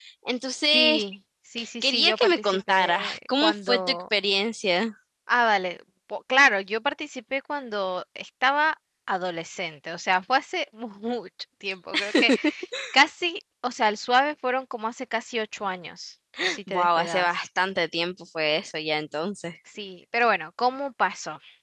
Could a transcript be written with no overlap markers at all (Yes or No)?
No